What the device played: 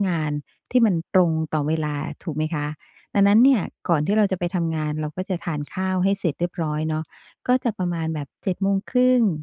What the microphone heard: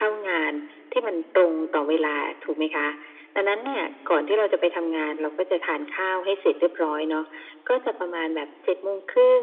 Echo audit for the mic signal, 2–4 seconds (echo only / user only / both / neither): echo only